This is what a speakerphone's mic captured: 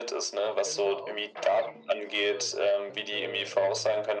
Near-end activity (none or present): present